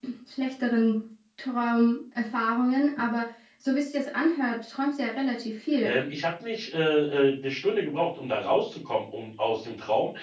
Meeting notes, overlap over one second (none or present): none